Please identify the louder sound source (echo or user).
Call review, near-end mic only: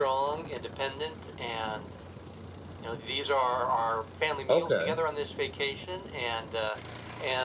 user